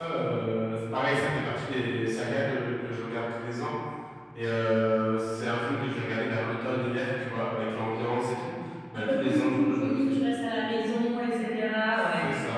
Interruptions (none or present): present